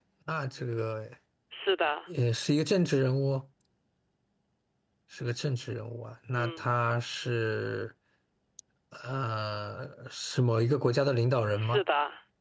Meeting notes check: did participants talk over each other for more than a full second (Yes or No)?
No